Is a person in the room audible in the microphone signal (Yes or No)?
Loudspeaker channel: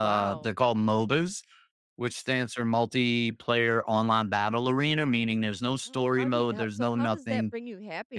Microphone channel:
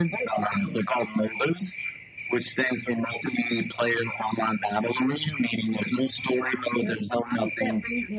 No